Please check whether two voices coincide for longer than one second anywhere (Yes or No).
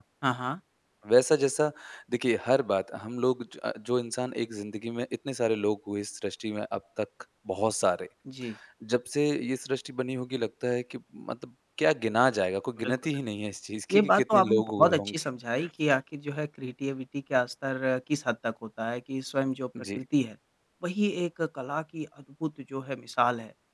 Yes